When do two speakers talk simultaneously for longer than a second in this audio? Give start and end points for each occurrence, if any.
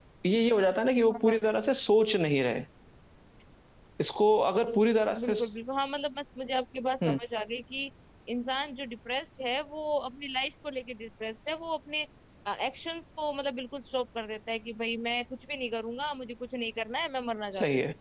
none

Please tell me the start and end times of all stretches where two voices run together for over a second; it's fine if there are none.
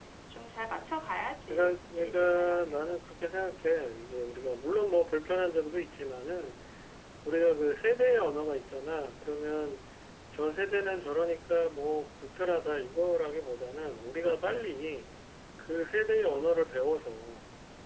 1.5-2.9

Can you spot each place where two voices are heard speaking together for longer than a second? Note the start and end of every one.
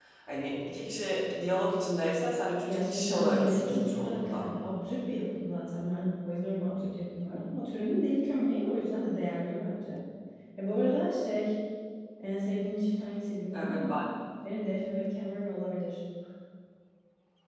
2.7-4.5

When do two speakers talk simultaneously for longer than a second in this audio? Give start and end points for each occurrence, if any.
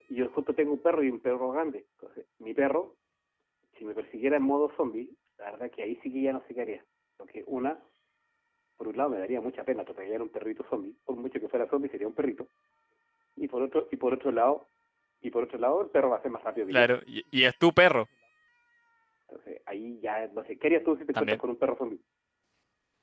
none

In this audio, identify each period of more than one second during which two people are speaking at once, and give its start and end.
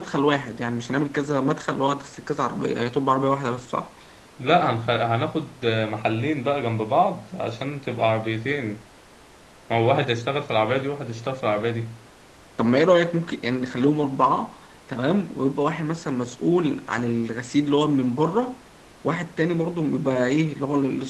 none

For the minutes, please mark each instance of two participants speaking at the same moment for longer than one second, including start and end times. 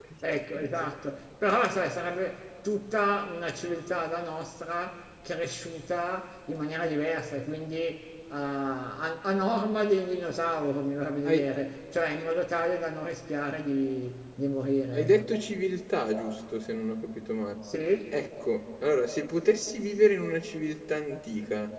none

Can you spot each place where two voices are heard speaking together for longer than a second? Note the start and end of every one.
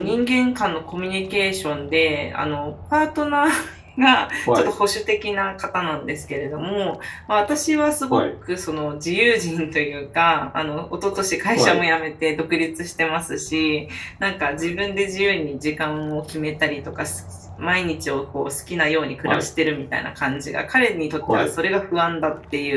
none

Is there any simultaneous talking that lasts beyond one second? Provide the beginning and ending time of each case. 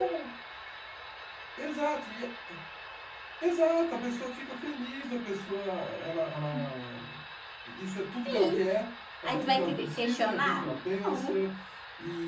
9.2-10.6

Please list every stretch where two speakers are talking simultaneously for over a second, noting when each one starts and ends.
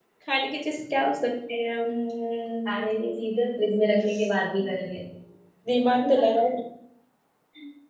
none

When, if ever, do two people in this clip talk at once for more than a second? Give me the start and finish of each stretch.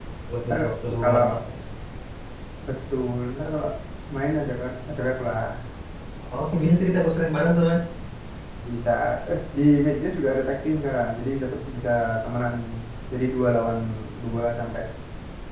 none

